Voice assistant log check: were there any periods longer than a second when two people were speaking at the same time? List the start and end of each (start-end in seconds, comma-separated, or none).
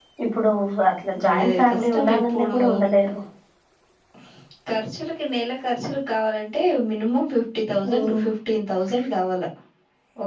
1.2-2.6